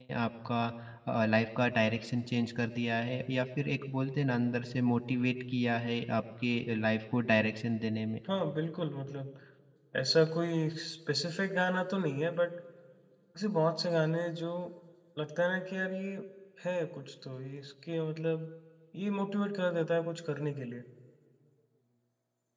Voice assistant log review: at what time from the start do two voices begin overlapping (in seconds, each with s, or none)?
none